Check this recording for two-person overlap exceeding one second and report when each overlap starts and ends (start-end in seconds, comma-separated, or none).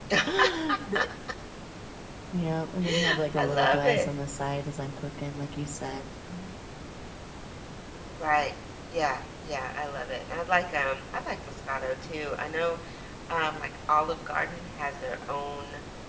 2.8-4.1